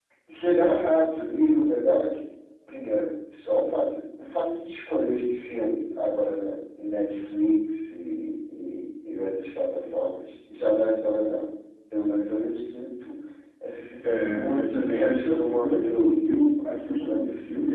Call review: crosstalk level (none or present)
present